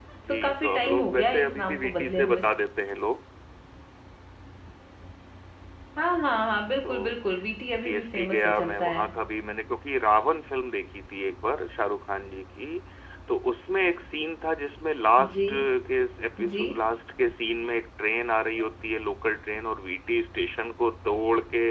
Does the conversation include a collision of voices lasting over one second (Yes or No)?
Yes